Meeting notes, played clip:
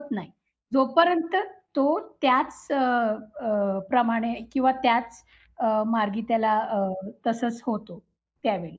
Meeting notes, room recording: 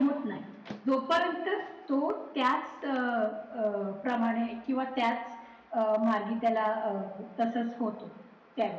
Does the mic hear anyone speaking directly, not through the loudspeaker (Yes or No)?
No